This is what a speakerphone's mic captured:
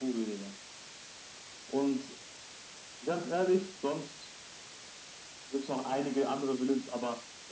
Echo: present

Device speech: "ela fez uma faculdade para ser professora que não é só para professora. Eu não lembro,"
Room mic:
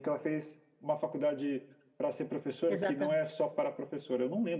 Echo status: present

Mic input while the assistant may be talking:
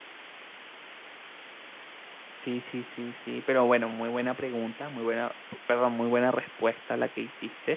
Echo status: none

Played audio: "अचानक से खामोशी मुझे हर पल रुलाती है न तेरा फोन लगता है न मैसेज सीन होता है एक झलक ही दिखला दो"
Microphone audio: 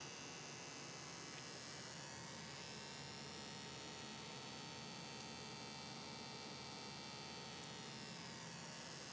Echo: none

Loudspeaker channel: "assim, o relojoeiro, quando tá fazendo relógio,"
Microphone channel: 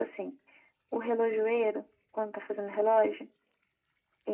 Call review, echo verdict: present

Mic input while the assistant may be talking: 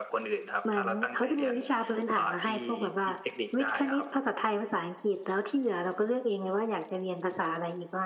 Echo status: present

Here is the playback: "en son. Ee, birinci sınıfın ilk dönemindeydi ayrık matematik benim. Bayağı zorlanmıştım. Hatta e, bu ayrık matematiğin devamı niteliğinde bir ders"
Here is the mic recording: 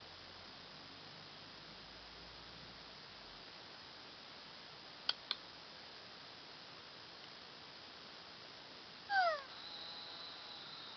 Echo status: none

